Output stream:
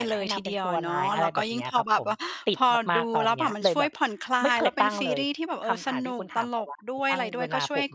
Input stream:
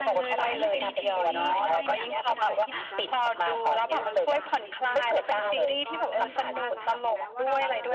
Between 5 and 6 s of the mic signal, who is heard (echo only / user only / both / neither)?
both